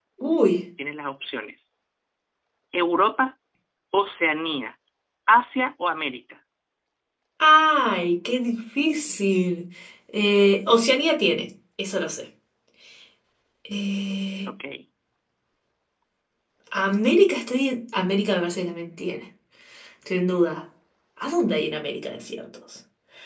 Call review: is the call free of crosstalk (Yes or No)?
Yes